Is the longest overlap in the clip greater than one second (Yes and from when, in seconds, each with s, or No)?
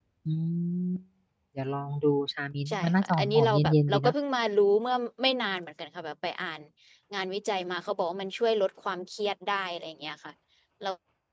Yes, from 2.7 s